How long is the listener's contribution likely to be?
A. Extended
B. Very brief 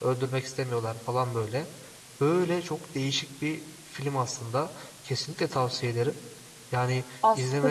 A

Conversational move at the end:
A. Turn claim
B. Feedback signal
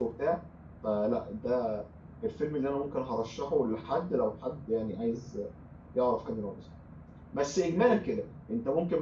B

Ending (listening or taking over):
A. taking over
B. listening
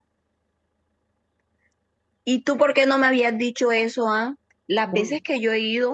B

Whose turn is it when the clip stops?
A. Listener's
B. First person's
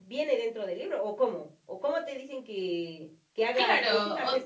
A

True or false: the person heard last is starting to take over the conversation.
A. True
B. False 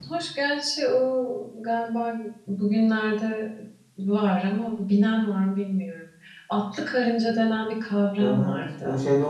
A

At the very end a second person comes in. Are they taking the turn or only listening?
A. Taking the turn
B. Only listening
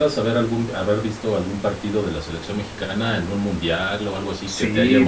A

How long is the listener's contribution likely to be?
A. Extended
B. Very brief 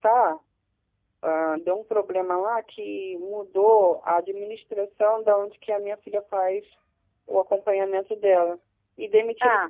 B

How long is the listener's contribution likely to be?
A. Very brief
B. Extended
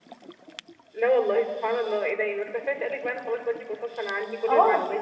B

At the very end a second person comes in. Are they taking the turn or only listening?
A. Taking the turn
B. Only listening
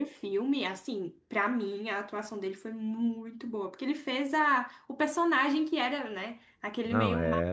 B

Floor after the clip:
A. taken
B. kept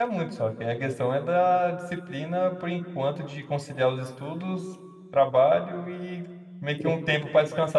B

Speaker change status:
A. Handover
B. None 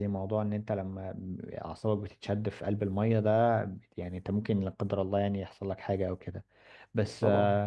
B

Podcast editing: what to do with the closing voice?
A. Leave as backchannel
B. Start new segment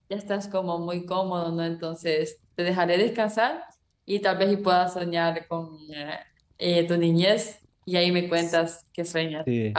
A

